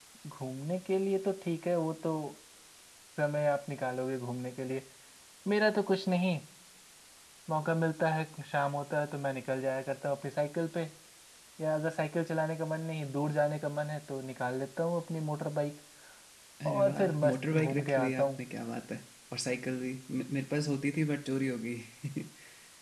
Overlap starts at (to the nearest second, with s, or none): 17 s